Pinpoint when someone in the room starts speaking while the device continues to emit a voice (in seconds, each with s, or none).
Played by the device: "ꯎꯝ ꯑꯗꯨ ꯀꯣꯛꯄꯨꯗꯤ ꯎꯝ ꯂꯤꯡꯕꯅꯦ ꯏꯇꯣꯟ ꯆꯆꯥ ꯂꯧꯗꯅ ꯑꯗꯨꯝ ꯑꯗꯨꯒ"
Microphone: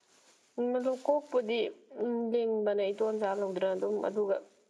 none